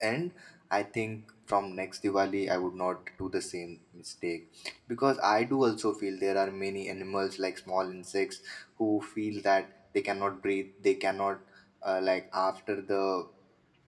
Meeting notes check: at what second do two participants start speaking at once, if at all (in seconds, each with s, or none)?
none